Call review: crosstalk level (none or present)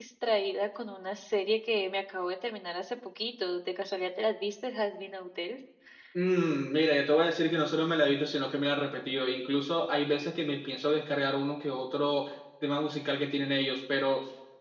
none